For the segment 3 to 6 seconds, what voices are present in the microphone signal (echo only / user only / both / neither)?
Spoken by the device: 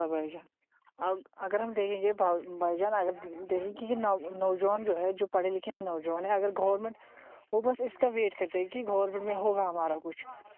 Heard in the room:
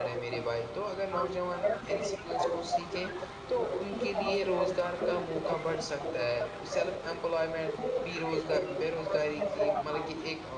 both